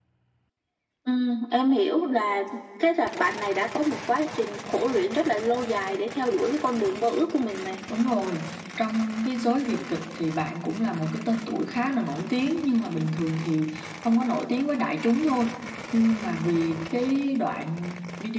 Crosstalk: none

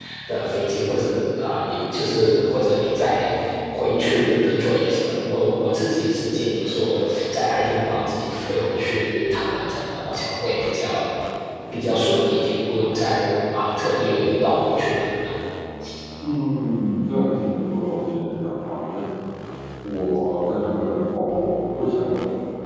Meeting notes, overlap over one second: none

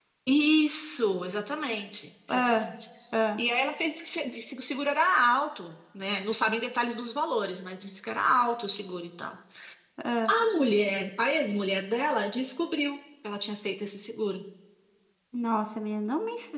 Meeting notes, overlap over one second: none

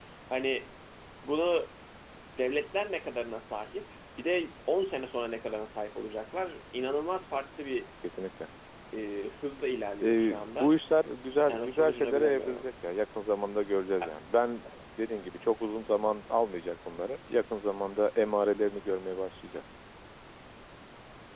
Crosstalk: present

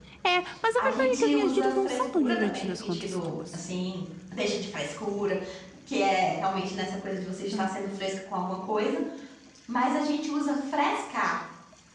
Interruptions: present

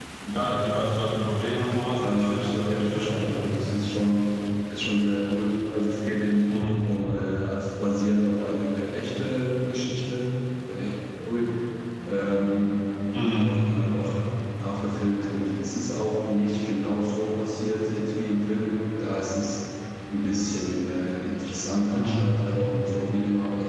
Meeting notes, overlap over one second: present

